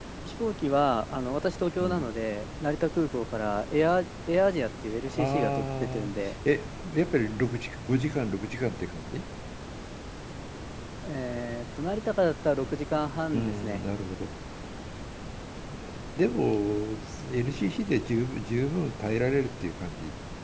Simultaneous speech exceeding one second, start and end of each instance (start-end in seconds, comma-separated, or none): 5.1-6.3